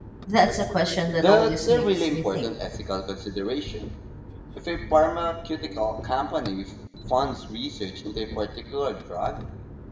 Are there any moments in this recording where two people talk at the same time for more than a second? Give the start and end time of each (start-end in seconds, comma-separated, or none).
1.2-2.5